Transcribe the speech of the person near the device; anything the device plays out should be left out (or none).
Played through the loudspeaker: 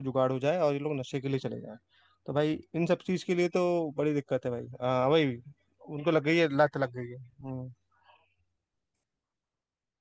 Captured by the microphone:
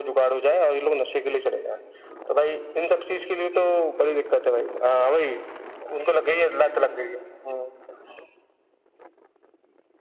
none